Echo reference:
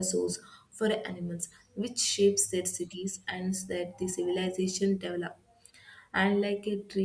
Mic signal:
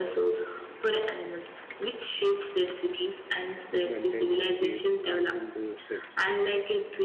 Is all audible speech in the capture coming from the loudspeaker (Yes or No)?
No